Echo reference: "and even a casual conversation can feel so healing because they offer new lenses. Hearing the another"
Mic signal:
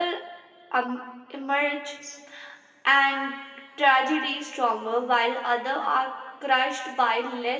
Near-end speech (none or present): present